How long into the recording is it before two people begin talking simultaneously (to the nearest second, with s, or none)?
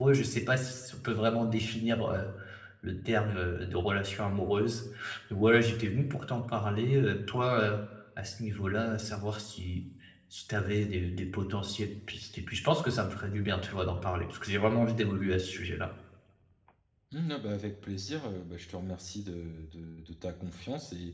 none